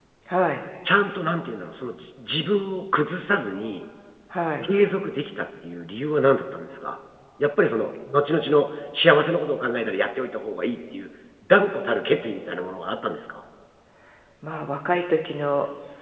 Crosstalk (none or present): none